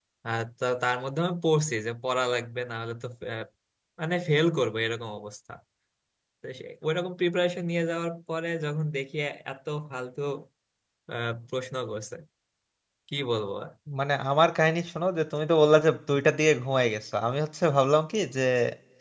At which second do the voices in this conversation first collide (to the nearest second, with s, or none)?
none